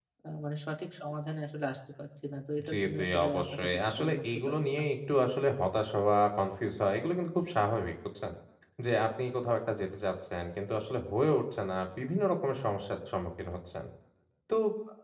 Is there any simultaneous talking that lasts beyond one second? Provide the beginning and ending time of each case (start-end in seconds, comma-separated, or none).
2.7-4.9